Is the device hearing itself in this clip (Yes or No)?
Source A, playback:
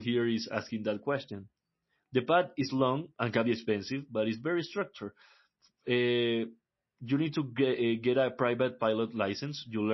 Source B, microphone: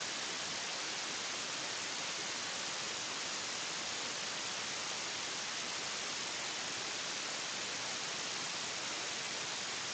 No